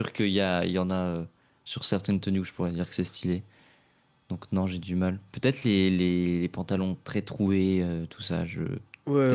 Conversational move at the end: taking over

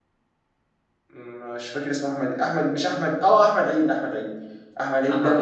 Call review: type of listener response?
listening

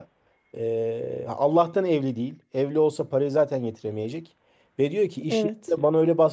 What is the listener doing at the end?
listening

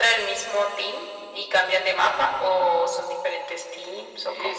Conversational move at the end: taking over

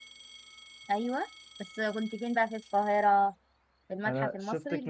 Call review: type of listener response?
taking over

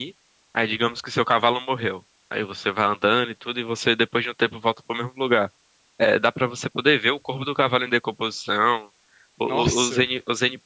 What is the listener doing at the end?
listening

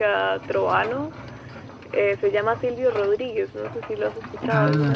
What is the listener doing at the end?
taking over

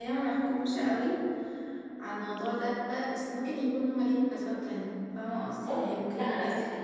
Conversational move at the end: taking over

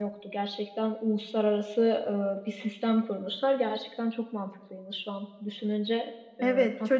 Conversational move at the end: taking over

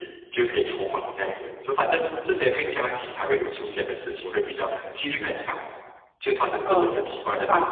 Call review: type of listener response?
taking over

